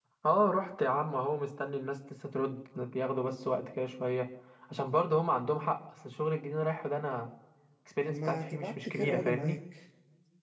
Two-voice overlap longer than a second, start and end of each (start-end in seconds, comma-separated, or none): 8.1-9.6